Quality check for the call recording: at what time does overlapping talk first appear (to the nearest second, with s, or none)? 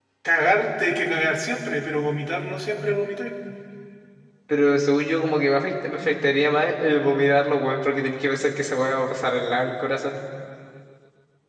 none